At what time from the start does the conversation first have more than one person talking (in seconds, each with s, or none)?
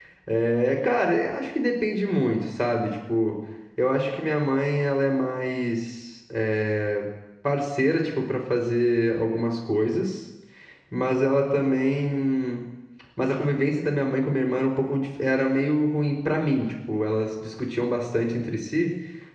none